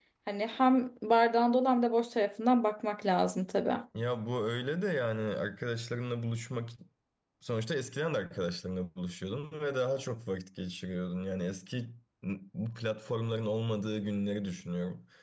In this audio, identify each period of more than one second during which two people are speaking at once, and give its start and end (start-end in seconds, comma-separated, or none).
none